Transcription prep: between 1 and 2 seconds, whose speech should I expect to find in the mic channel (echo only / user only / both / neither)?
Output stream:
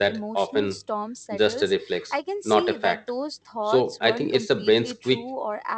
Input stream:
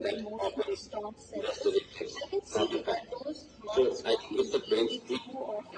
echo only